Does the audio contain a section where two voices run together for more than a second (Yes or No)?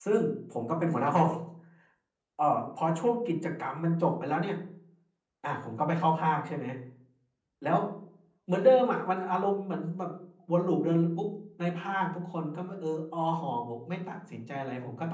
No